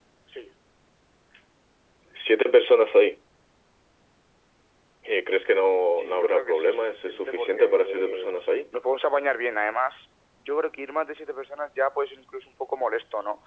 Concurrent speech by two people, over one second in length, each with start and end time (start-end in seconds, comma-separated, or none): 6.0-8.3